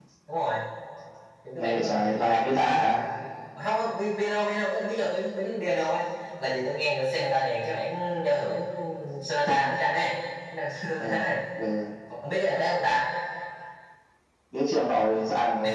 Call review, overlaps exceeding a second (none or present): present